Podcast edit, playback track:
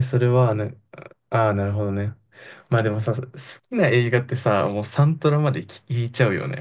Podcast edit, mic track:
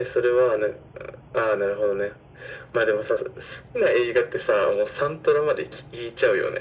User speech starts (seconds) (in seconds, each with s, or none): none